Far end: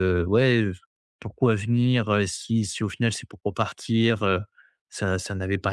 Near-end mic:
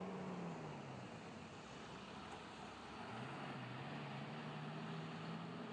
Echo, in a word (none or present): none